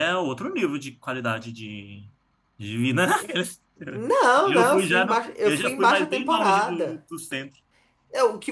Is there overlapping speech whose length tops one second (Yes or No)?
Yes